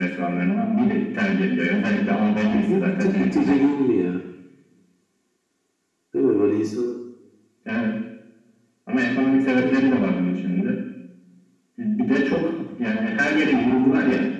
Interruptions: present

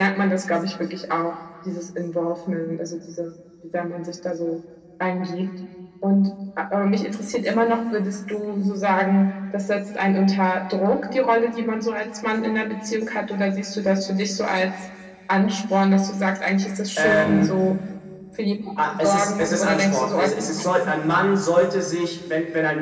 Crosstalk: present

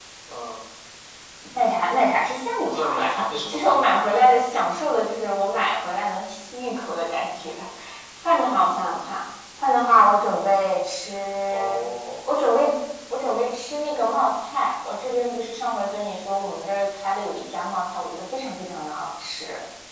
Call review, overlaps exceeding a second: present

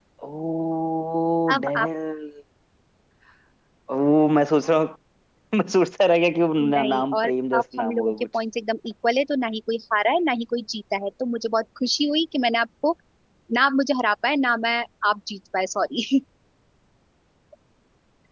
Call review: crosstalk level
present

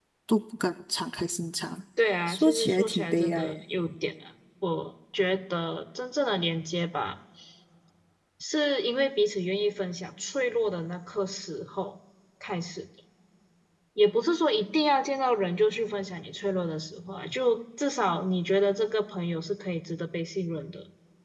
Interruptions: present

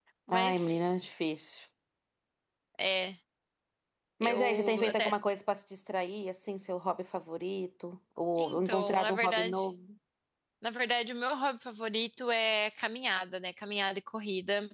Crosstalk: present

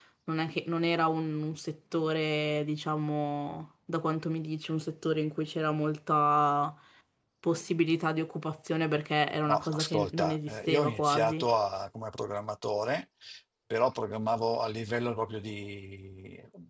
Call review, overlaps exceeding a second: present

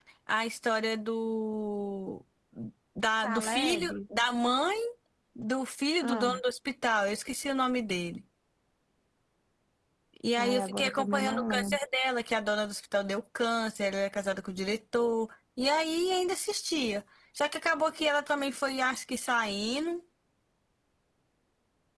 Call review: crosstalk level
present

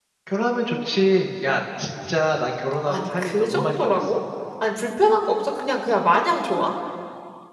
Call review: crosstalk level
present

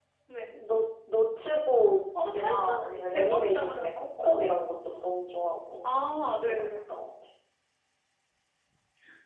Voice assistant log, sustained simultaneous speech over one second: present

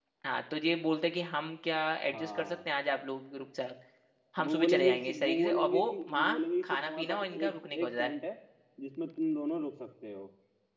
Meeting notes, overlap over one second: present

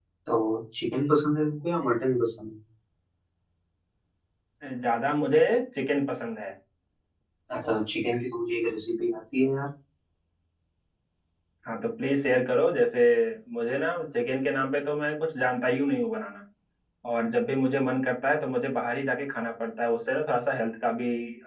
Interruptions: none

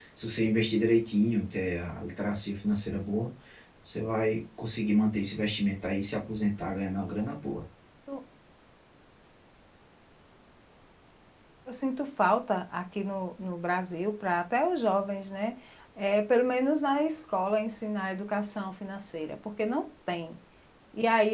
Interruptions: none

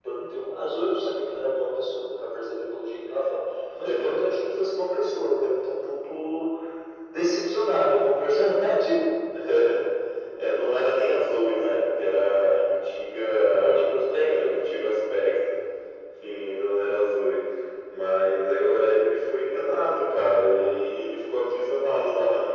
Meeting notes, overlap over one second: none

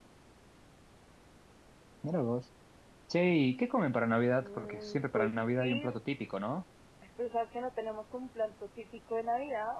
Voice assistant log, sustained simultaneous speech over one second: present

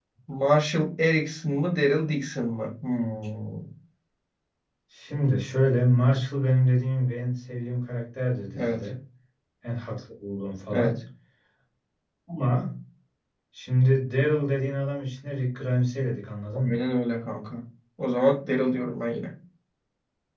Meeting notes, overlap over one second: none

